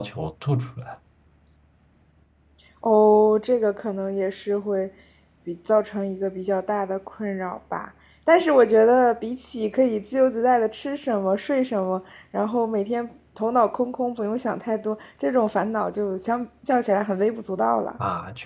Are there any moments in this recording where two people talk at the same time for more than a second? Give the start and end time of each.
none

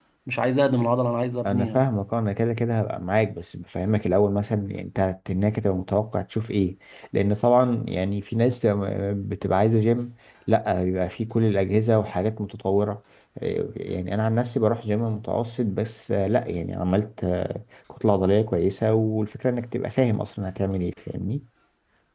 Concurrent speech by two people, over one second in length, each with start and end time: none

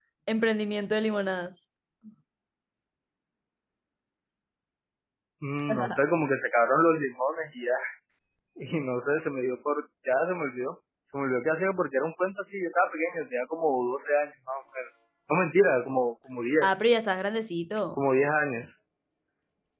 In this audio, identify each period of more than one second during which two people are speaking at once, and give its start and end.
none

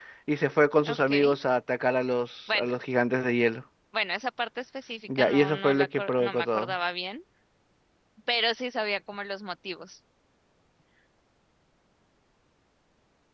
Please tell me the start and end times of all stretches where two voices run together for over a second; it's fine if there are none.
5.2-6.7

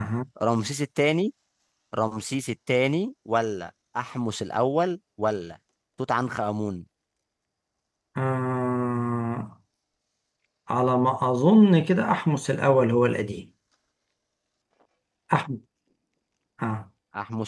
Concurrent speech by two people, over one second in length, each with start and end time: none

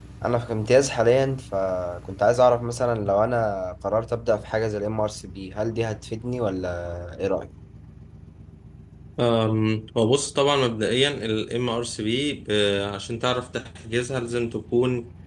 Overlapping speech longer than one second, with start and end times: none

